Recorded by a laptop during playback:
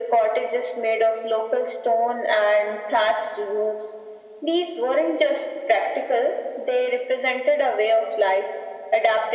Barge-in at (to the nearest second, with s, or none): none